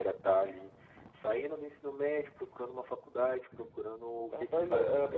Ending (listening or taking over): taking over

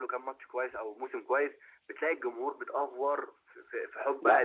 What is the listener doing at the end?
taking over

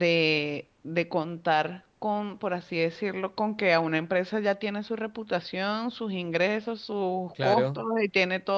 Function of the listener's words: listening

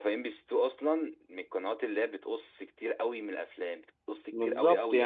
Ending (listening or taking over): taking over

